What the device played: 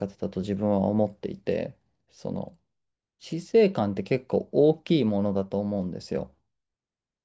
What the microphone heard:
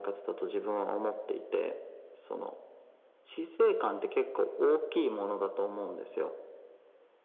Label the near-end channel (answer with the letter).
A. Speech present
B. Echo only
B